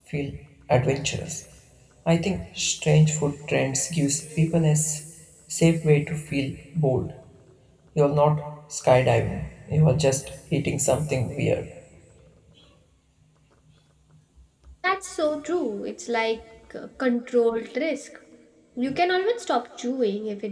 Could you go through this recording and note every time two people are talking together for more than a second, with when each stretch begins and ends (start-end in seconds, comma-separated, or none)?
none